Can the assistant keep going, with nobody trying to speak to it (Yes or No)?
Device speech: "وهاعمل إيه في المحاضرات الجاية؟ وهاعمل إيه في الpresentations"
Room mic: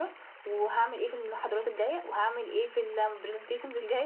Yes